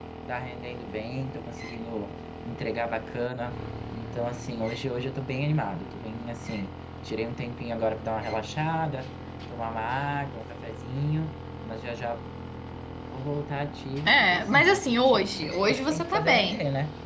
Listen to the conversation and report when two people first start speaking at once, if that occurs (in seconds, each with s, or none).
14.1 s